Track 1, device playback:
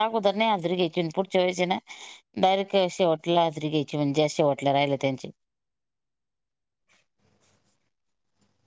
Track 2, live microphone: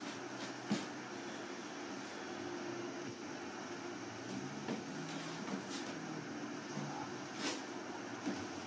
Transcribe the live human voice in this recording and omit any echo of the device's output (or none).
none